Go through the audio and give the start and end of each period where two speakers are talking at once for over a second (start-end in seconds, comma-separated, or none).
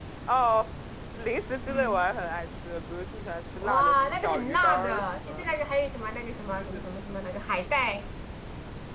3.6-5.4